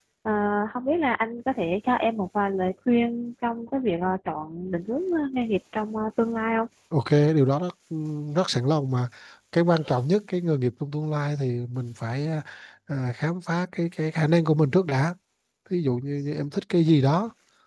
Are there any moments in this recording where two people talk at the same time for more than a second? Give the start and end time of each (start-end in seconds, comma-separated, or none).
none